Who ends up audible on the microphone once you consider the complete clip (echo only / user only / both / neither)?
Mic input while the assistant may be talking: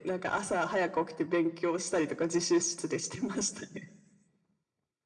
echo only